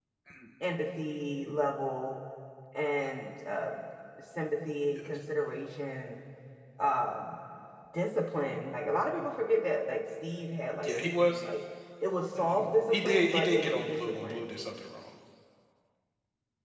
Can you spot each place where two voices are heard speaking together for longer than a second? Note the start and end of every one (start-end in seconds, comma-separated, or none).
12.3-14.4